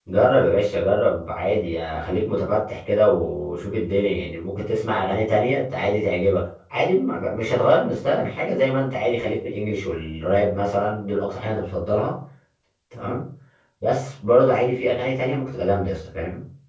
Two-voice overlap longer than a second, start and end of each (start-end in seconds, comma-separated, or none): none